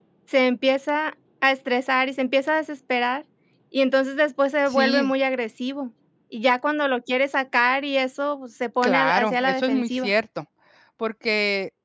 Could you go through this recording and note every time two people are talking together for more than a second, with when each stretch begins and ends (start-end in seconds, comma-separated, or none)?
8.8-10.1